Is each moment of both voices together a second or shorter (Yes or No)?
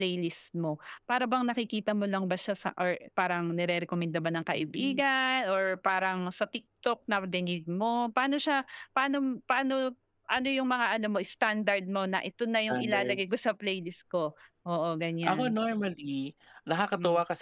Yes